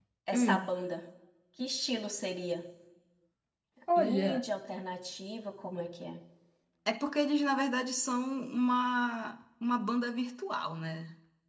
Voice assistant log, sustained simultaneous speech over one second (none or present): none